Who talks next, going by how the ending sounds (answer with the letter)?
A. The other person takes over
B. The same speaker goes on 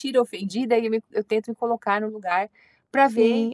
A